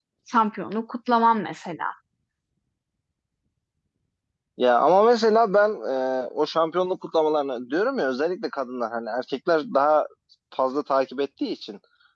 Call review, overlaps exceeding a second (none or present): none